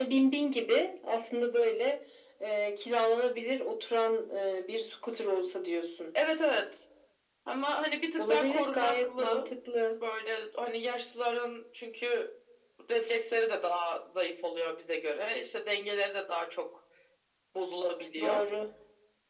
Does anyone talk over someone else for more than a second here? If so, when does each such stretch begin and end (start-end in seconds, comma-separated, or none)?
8.2-9.5